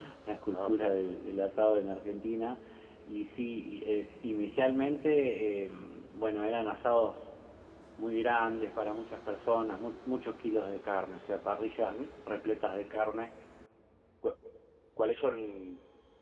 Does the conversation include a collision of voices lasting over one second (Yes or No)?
No